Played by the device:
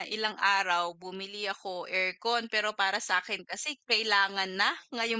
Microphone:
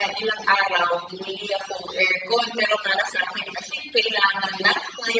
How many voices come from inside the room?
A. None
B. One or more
A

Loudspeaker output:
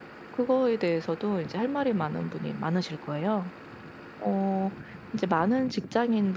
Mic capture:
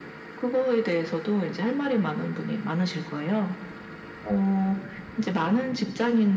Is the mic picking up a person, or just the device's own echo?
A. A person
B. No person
B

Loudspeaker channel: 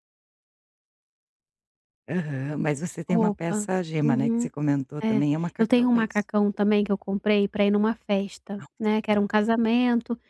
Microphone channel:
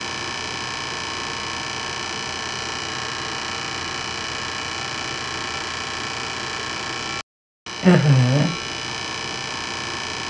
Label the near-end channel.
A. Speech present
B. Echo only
A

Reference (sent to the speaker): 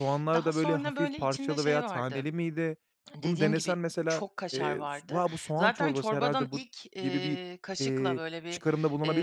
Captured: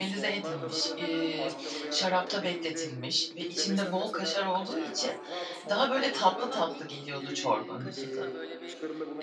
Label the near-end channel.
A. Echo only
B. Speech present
B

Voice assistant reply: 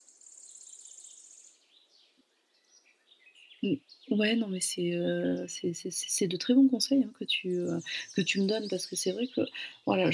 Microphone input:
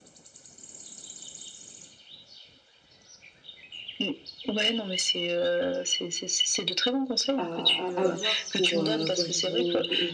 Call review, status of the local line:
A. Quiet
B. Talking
B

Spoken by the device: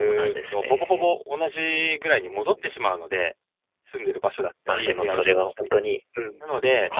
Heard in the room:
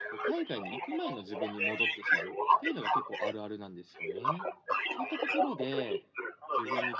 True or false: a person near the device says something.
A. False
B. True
B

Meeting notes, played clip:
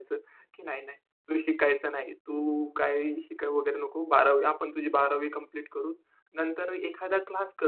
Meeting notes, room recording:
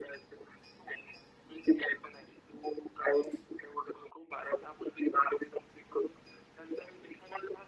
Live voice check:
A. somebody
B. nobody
B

